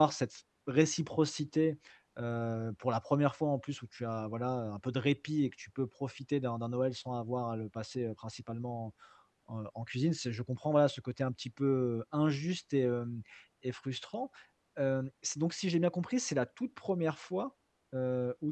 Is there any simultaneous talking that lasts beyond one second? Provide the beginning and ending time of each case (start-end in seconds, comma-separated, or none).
none